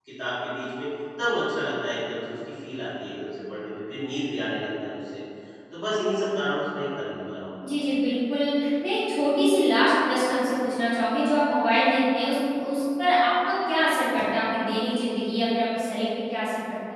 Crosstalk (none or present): none